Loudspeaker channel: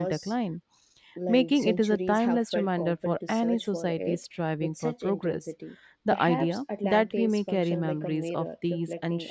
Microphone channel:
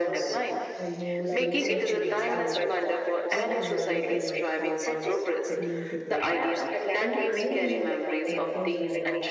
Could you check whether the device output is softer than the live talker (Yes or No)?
No